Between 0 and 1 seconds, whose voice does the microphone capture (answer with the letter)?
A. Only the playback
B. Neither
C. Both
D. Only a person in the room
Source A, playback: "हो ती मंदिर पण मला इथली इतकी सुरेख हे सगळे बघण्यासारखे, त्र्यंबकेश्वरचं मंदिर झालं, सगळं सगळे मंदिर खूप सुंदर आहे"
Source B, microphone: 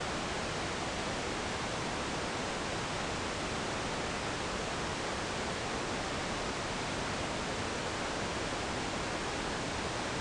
B